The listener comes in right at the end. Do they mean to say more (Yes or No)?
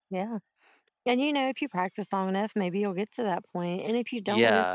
Yes